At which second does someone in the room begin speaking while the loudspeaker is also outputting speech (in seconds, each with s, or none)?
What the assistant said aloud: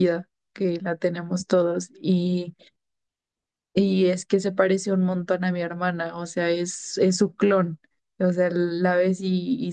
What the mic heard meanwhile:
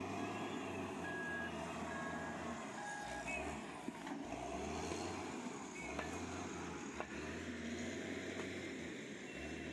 none